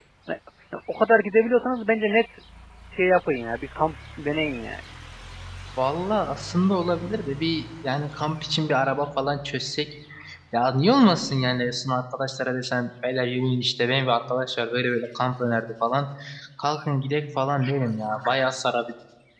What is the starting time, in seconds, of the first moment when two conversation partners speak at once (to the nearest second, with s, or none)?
none